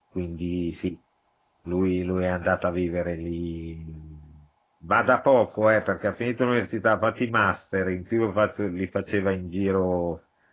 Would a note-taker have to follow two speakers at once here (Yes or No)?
No